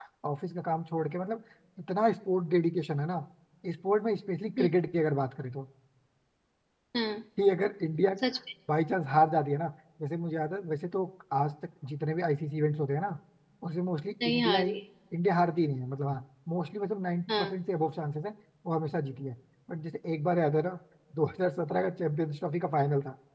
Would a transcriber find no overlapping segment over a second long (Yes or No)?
Yes